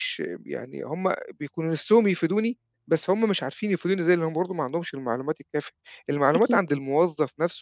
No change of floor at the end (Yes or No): Yes